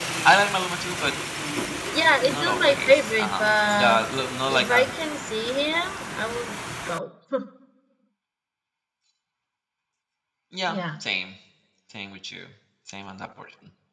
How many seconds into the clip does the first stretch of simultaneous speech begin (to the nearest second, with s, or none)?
2 s